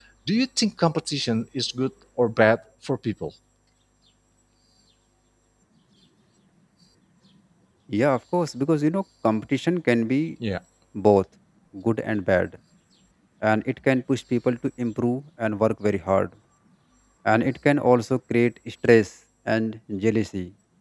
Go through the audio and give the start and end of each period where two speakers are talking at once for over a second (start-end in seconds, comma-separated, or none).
none